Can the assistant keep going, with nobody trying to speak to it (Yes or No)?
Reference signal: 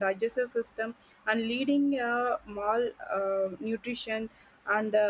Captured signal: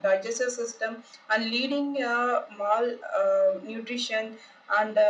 Yes